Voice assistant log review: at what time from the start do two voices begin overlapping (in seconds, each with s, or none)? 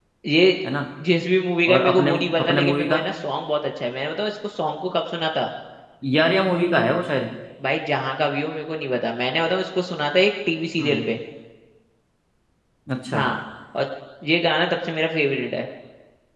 1.7 s